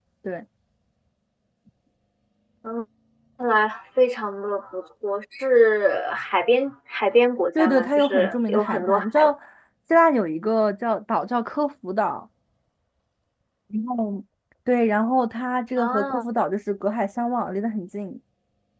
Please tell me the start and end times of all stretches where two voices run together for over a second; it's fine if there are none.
7.6-9.3

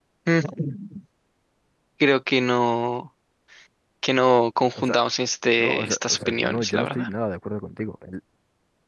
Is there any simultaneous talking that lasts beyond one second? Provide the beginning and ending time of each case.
5.6-7.1

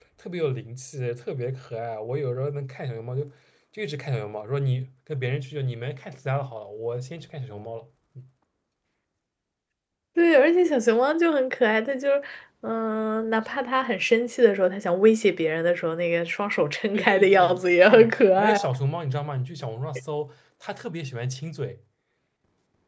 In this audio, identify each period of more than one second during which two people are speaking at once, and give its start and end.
16.9-18.6

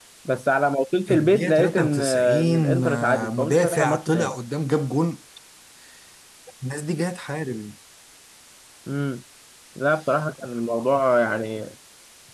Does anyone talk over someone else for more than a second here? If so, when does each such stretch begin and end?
1.1-4.3

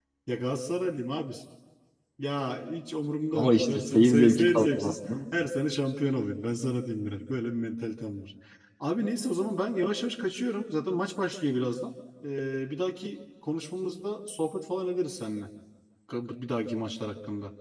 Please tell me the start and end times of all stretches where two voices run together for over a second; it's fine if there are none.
3.4-5.0

